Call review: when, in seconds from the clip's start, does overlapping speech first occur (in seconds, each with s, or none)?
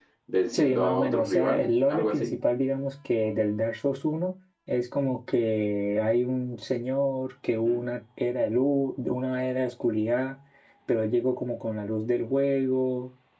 0.5 s